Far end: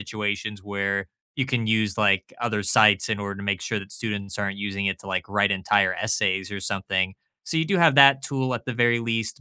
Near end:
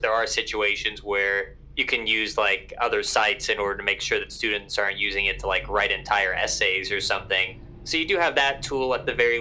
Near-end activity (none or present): none